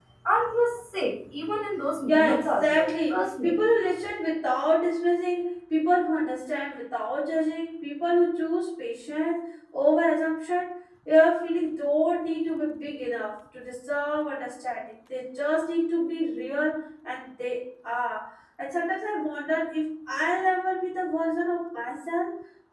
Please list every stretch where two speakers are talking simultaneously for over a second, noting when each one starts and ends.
2.1-3.5

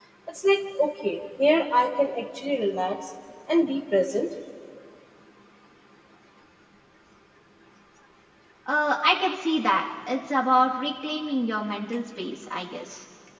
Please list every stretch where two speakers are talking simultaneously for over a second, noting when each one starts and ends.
none

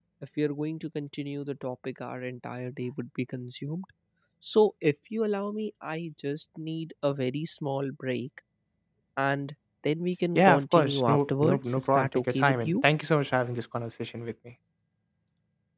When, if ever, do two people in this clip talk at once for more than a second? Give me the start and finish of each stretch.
10.3-12.8

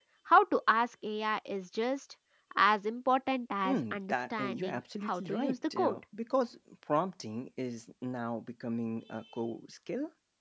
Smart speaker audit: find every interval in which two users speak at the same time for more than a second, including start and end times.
3.6-6.0

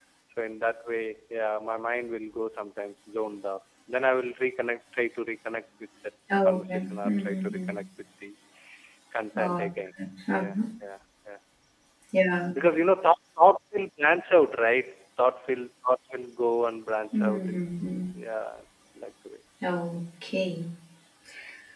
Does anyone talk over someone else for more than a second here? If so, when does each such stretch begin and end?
6.4-7.7

